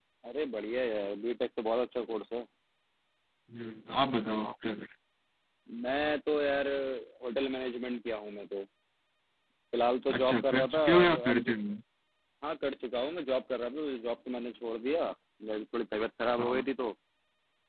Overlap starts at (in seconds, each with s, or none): 10.2 s